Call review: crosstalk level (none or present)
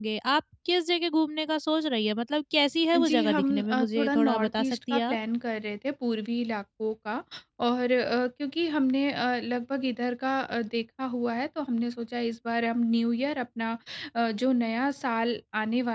present